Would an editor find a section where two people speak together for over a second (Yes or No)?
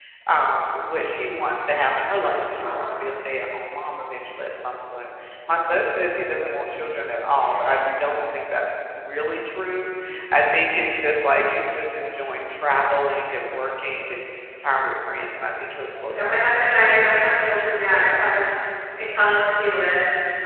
Yes